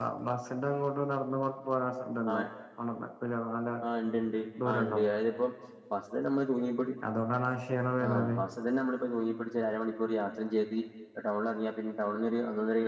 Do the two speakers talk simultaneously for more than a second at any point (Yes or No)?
No